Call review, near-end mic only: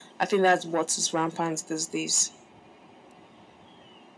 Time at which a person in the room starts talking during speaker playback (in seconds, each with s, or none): none